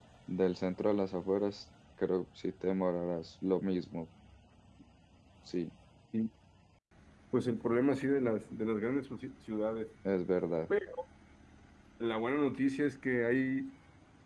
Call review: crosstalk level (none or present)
none